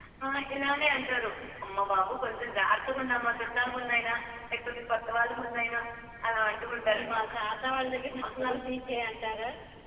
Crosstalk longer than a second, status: none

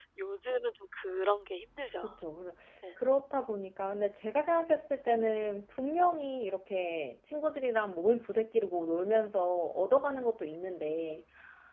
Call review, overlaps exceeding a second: none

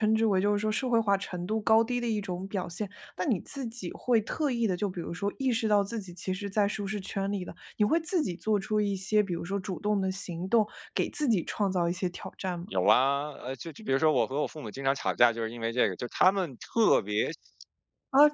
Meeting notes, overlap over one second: none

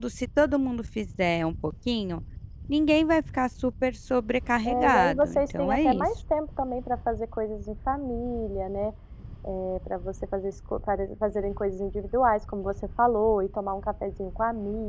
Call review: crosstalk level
present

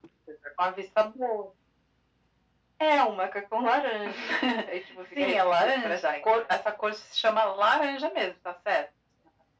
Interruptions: present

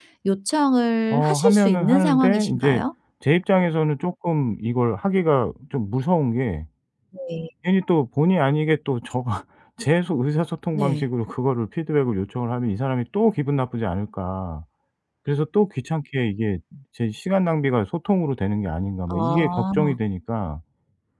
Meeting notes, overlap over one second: present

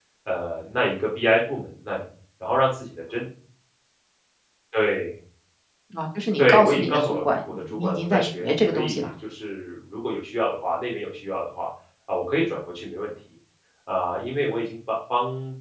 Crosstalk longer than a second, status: present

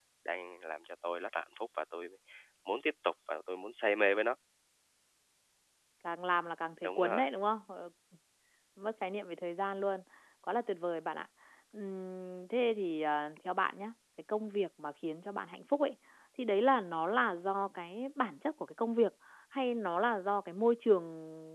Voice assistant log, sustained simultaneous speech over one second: none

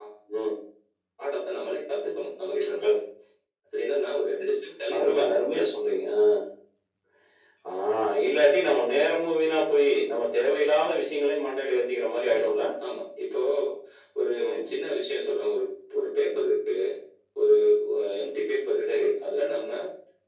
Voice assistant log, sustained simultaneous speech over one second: none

